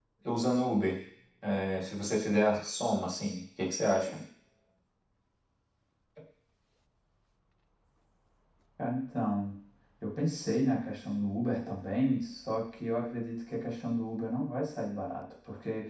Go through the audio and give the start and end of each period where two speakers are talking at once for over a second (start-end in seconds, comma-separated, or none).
none